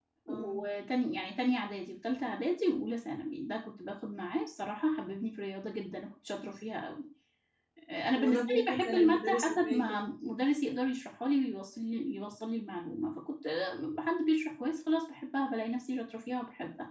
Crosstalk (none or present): present